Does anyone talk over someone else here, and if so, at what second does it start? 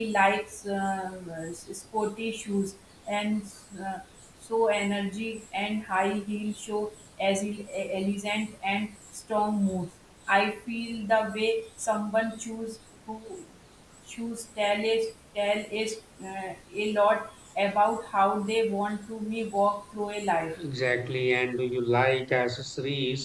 none

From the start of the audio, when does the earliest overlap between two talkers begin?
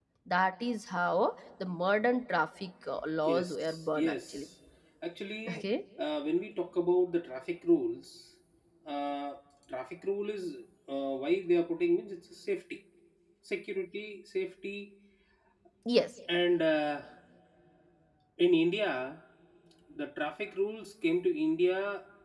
3.3 s

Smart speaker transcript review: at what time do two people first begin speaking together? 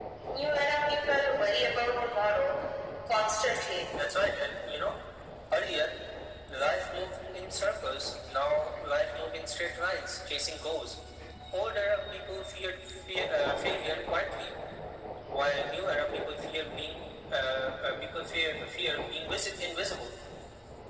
none

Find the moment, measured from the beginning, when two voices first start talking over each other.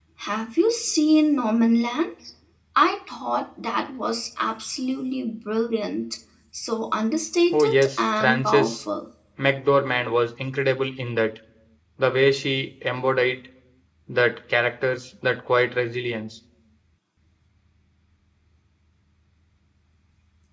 7.5 s

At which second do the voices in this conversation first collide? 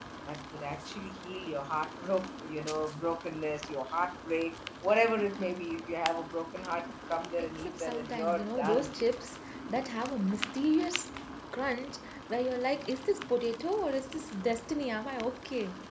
7.4 s

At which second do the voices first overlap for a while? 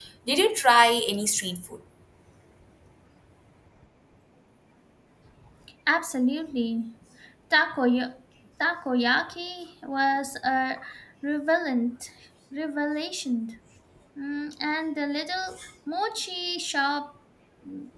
none

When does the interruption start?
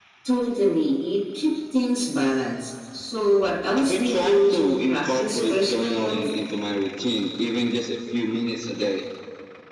3.8 s

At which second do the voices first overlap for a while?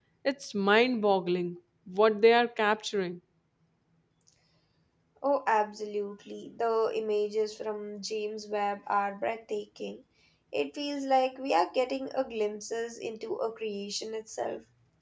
none

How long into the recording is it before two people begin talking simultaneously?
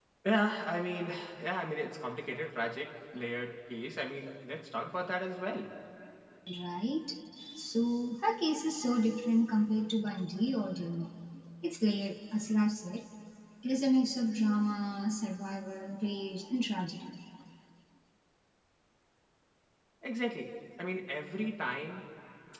none

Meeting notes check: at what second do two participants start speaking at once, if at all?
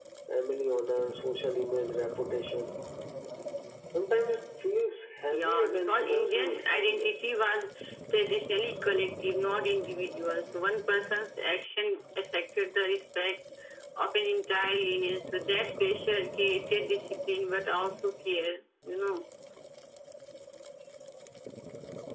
5.3 s

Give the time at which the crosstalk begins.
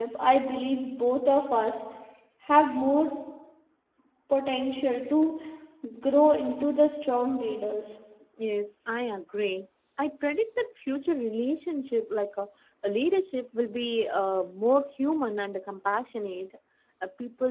none

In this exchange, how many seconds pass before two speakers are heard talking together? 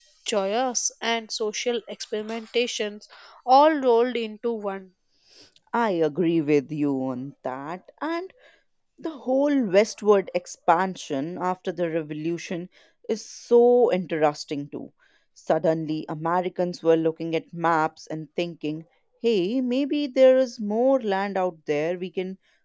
none

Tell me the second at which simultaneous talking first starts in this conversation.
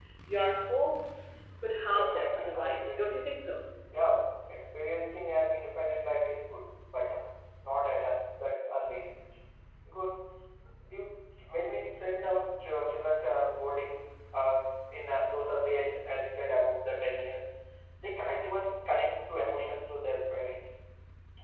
1.9 s

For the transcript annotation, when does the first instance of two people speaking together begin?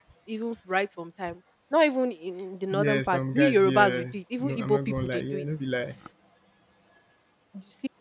2.7 s

